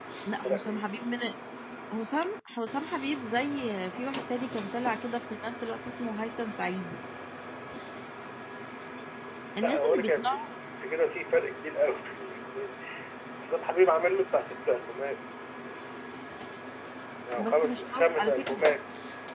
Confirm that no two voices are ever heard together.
No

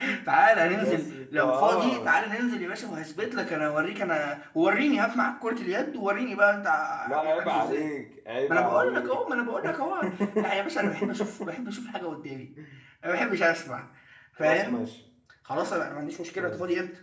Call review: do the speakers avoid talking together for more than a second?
No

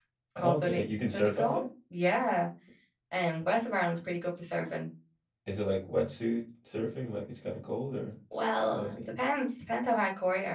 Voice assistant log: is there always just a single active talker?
No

